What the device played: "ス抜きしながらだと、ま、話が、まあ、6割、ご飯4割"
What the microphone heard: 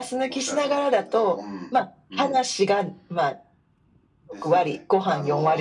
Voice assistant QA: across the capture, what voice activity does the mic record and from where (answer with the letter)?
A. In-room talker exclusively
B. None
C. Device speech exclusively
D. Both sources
D